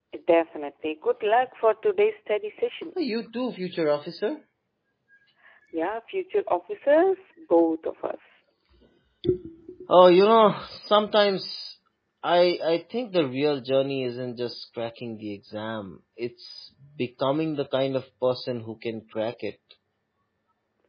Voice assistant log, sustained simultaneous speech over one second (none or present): none